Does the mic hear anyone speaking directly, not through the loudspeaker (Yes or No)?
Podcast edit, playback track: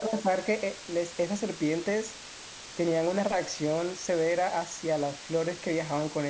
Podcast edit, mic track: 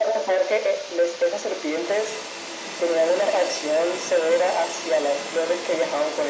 No